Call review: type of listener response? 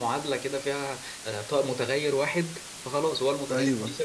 listening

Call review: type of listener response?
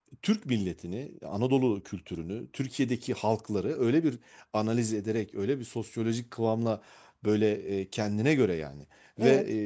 listening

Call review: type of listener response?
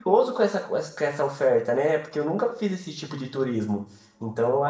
listening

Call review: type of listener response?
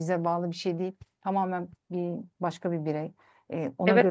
taking over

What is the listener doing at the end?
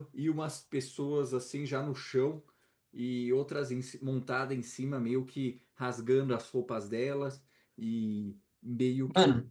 listening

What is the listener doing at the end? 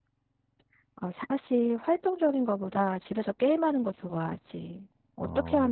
listening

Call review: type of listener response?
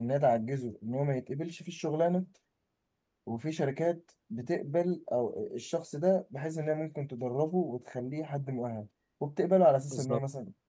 listening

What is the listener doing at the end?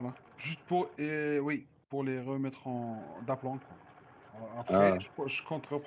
listening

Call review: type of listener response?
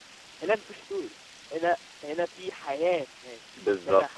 taking over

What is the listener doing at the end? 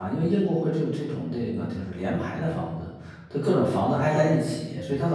listening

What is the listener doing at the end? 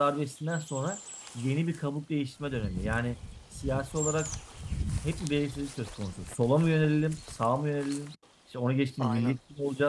listening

